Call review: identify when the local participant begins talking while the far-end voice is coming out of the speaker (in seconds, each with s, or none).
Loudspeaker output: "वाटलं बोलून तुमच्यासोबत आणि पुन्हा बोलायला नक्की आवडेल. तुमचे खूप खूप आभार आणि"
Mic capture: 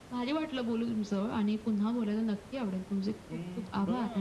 3.3 s